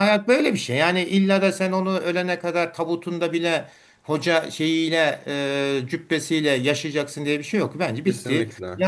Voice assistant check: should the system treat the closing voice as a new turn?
No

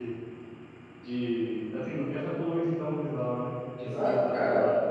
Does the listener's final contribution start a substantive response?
Yes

